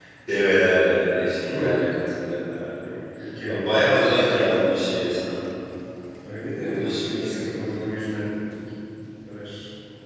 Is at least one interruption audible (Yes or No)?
Yes